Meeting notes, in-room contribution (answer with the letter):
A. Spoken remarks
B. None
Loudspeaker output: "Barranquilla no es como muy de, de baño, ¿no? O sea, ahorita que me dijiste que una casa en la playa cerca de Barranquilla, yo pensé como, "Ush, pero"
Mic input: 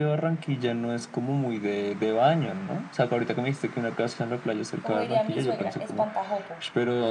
A